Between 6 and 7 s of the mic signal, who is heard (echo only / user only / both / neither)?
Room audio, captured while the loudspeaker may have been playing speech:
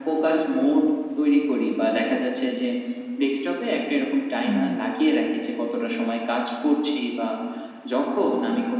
echo only